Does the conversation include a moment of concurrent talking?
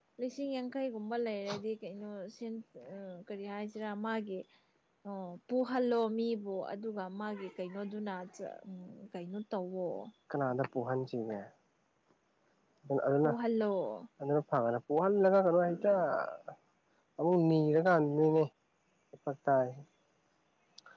No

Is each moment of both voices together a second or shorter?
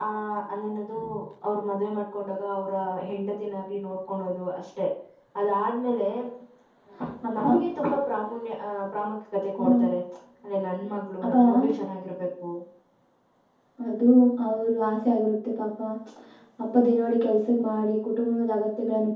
Yes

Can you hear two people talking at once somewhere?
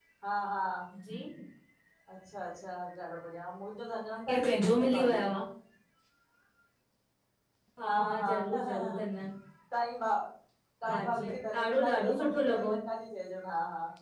Yes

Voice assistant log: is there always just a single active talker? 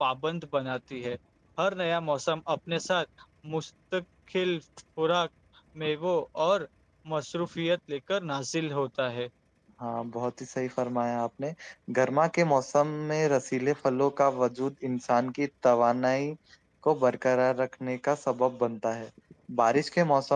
Yes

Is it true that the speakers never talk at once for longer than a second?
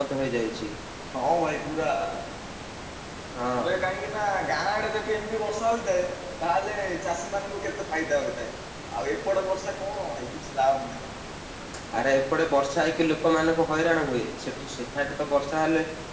Yes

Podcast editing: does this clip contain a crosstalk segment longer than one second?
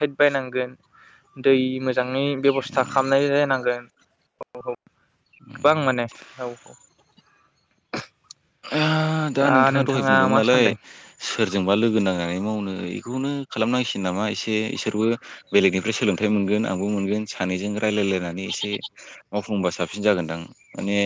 Yes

